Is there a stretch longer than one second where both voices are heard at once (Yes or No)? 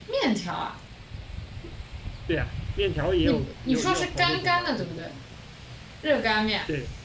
Yes